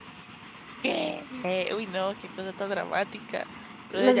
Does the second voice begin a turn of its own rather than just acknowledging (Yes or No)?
Yes